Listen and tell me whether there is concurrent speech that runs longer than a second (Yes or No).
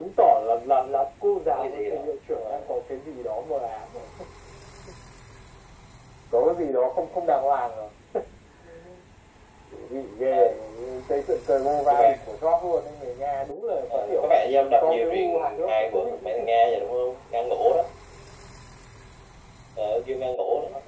Yes